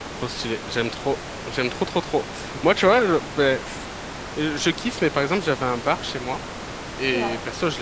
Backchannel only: Yes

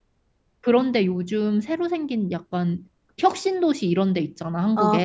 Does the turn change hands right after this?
Yes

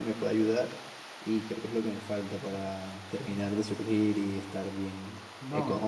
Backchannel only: Yes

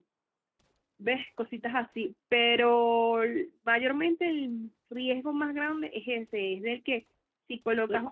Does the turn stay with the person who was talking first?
Yes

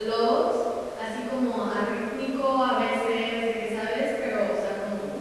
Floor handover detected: No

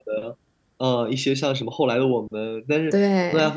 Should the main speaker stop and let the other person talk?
No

